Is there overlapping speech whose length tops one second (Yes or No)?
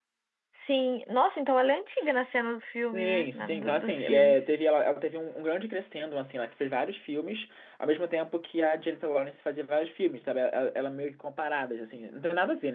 Yes